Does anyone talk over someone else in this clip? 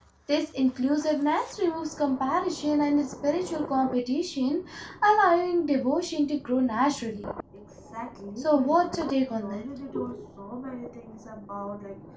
Yes, from 8.4 s

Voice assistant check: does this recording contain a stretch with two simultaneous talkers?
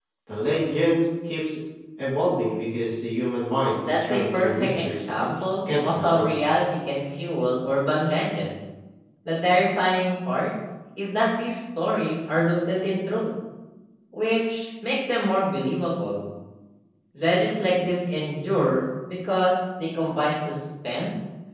Yes, from 3.9 s

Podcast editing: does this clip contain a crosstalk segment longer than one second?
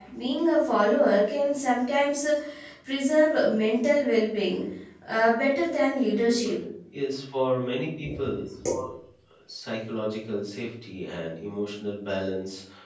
No

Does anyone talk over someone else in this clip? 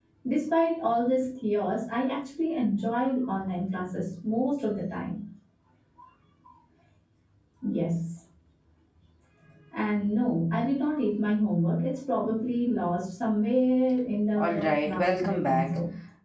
Yes, from 14.4 s

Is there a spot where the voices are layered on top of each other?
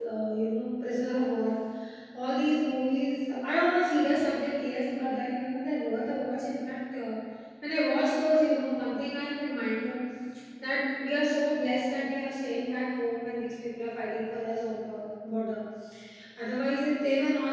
No

